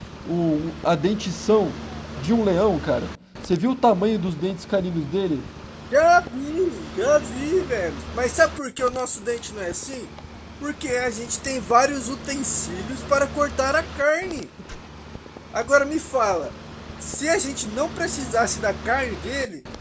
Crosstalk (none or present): none